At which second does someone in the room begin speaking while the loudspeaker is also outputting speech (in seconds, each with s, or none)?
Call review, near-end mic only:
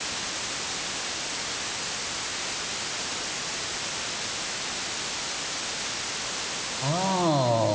6.8 s